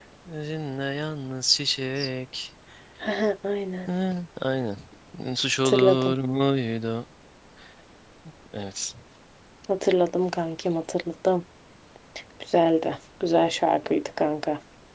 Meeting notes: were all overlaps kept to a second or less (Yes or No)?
Yes